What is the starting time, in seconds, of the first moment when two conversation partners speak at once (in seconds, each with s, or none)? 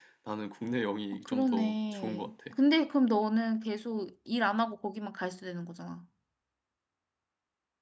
1.2 s